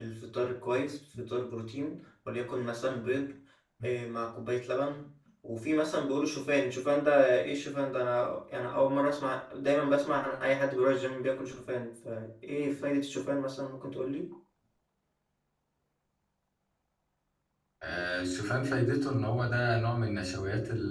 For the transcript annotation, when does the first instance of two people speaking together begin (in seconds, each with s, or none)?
none